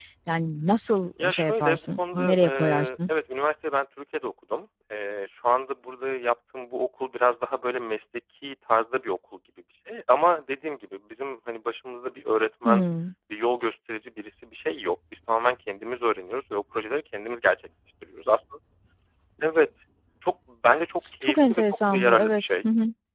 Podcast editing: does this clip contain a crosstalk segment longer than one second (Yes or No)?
Yes